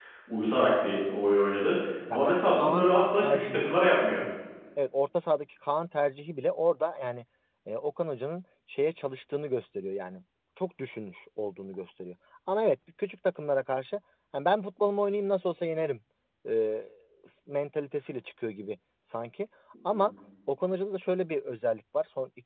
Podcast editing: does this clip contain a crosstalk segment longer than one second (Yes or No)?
Yes